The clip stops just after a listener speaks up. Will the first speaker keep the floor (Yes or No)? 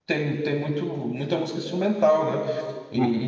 No